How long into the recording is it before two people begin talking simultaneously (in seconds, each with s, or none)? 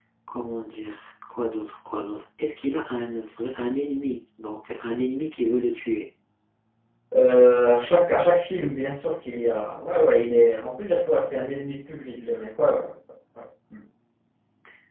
none